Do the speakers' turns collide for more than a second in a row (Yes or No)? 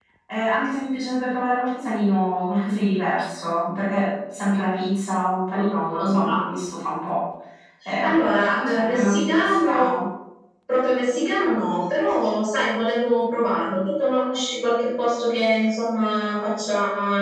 Yes